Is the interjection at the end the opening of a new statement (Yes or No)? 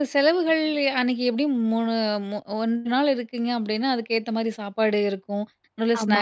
No